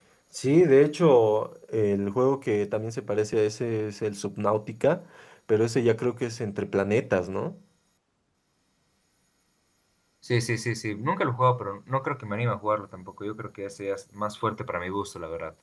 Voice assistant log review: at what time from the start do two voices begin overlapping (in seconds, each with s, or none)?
none